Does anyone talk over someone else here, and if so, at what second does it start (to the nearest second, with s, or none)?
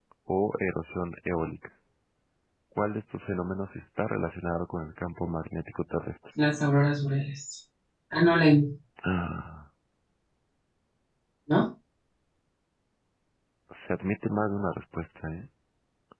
none